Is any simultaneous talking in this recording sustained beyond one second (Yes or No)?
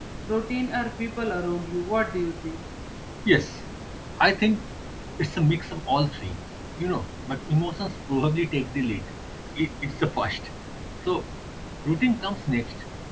No